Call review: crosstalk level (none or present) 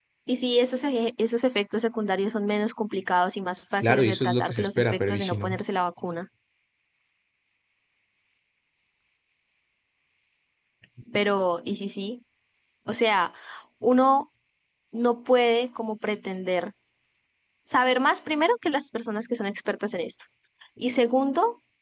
present